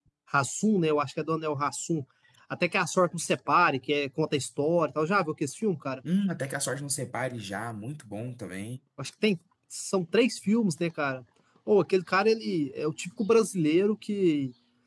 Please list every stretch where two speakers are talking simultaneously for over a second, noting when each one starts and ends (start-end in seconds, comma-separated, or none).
none